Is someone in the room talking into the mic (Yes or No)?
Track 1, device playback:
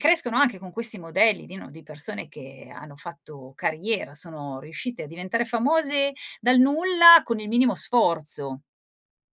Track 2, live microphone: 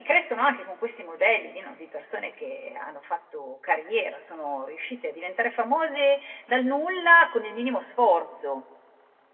No